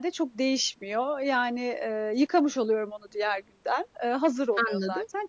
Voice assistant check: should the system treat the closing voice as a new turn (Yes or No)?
No